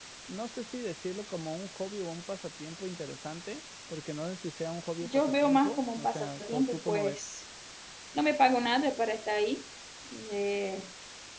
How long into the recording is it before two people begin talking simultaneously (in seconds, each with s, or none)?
5.0 s